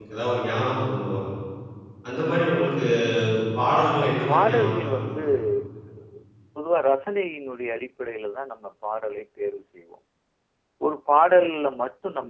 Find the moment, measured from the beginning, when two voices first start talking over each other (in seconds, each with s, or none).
4.0 s